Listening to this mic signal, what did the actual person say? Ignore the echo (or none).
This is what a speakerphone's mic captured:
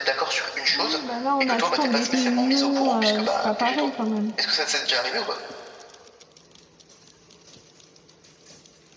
Oui, Bah là, on a tout le temps des réunions, euh, c'est pas pareil quand même.